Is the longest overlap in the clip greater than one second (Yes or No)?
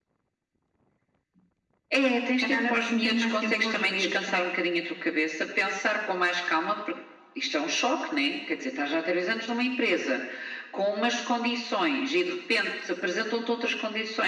Yes